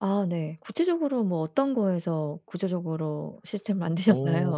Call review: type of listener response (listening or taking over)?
taking over